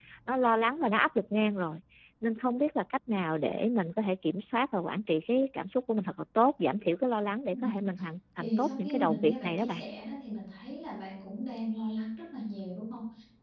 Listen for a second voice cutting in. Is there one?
Yes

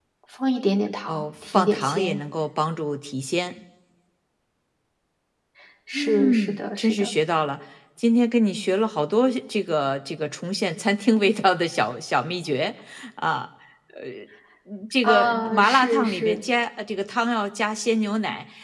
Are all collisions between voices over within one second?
No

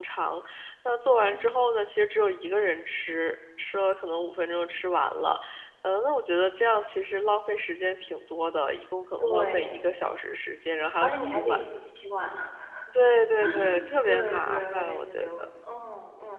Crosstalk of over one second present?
Yes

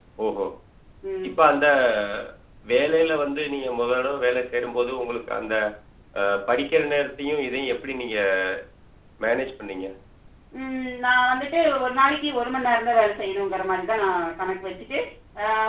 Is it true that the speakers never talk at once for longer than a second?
Yes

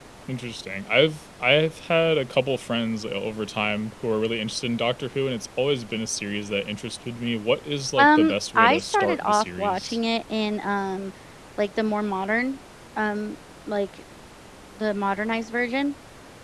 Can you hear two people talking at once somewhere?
Yes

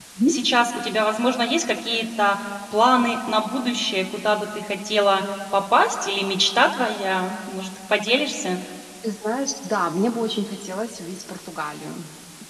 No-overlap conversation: Yes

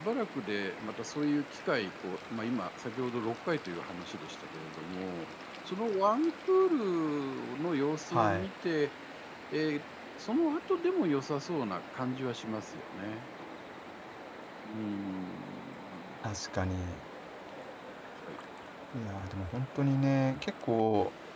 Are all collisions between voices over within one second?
Yes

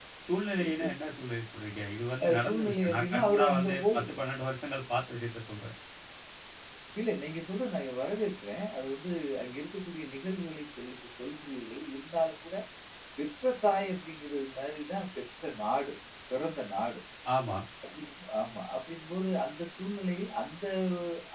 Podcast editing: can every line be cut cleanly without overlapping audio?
No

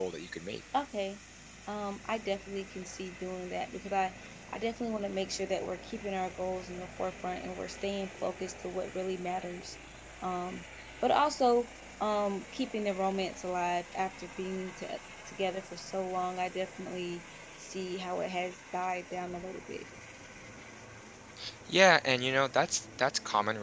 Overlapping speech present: No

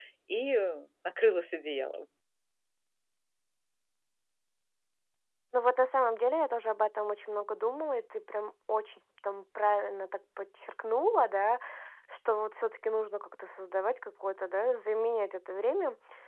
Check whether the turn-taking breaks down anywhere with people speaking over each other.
No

